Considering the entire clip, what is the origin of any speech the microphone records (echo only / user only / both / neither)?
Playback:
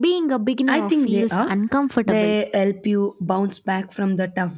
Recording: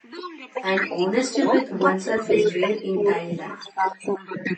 both